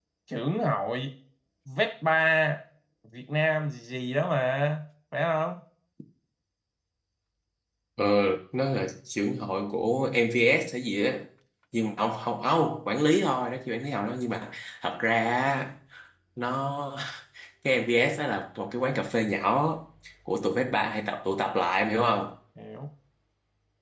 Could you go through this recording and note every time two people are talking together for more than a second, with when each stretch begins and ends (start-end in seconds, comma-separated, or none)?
none